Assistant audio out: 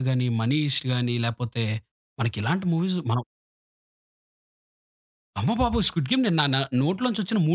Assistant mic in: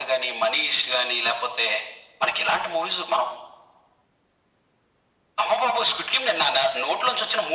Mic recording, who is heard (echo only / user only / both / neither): echo only